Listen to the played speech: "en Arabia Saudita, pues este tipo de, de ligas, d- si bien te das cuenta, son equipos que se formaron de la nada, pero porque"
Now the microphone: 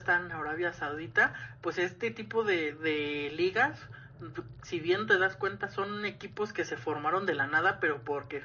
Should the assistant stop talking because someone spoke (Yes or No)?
No